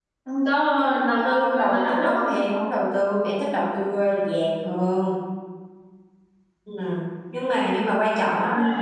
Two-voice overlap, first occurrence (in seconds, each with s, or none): 0.7 s